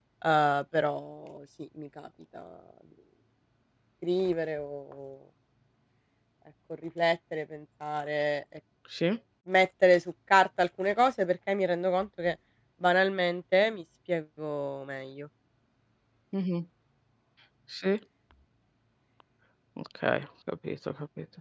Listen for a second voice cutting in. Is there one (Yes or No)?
No